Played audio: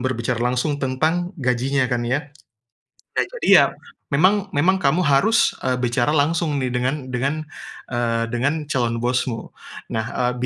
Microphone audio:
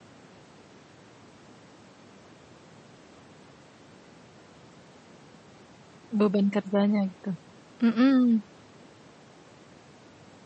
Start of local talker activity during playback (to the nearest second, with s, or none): 6 s